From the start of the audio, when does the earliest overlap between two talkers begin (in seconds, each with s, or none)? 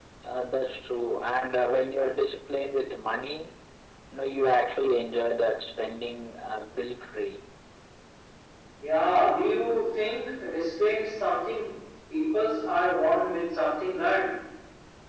none